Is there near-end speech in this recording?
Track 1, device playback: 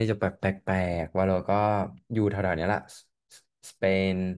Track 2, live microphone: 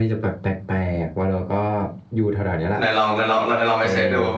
Yes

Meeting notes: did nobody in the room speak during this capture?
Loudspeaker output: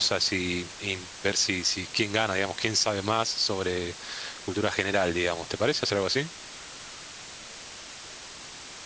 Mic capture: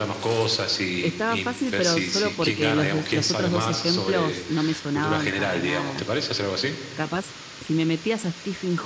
No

